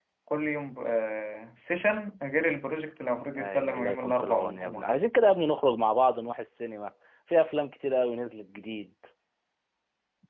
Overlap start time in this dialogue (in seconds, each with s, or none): 3.4 s